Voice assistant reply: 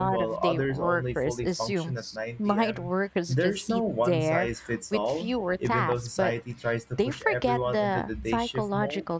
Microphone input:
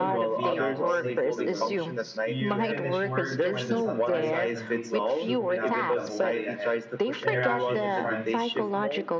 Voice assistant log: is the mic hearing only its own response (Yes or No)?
No